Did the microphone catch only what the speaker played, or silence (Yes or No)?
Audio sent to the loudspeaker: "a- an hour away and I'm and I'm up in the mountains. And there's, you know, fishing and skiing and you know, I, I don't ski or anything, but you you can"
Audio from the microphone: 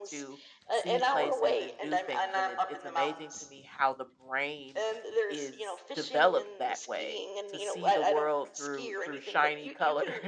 No